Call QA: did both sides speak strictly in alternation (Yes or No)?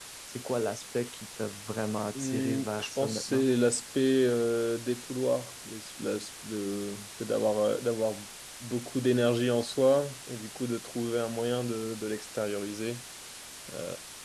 No